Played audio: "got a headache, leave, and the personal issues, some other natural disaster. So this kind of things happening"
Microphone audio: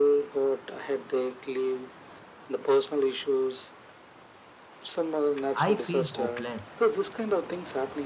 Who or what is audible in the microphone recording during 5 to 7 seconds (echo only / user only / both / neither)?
both